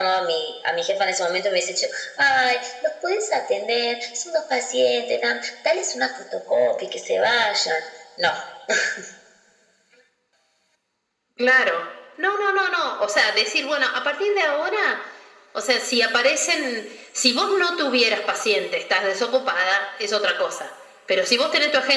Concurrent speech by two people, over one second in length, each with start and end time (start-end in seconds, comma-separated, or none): none